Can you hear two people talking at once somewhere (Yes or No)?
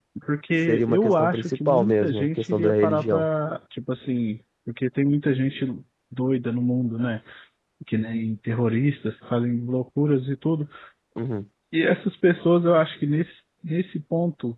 Yes